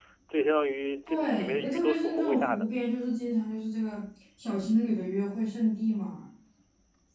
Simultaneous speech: Yes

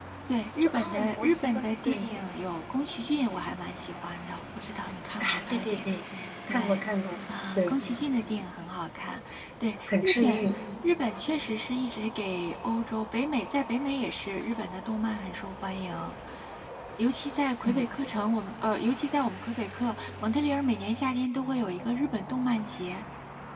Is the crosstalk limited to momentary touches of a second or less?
No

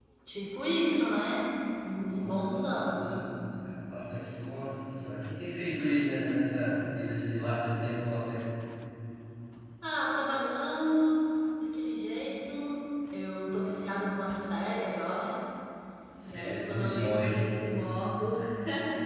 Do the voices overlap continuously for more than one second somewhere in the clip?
Yes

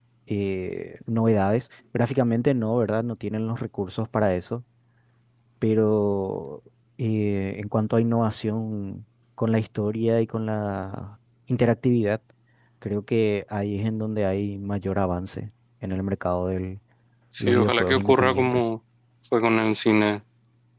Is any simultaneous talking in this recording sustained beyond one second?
Yes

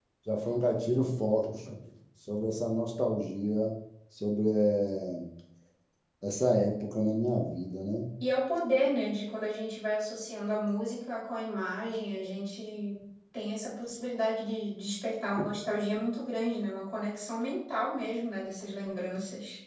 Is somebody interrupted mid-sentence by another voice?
No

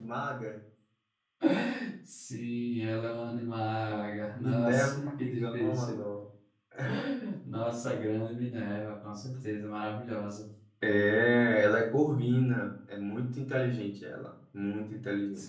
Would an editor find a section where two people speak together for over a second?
Yes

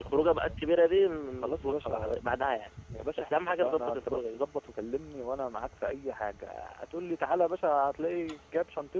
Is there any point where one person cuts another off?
Yes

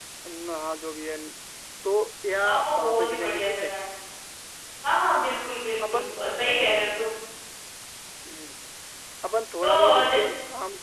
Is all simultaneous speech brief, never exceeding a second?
No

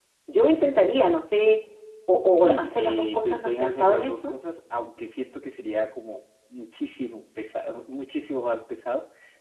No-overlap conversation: No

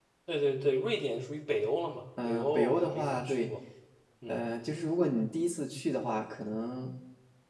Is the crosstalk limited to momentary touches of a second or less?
No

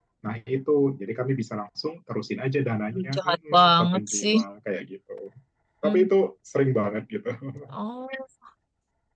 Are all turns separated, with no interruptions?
No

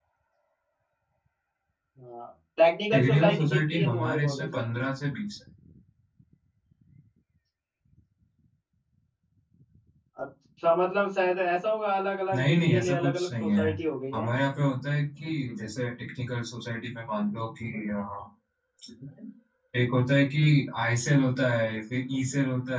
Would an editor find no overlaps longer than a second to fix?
No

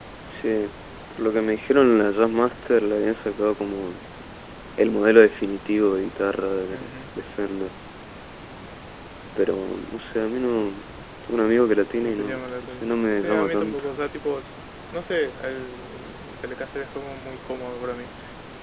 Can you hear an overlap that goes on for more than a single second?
Yes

